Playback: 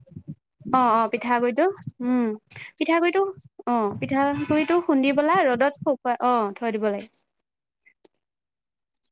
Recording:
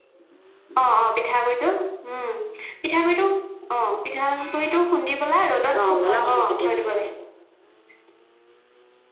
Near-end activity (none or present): present